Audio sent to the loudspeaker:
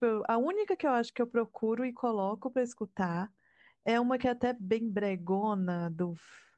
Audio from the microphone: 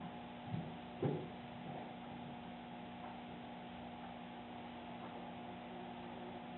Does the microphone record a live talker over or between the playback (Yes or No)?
No